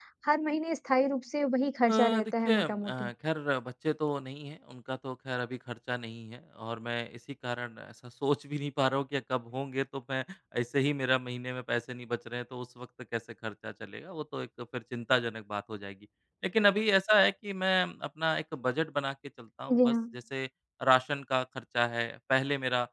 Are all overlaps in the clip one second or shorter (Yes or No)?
No